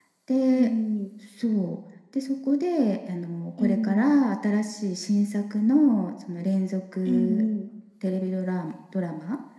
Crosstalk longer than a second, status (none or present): none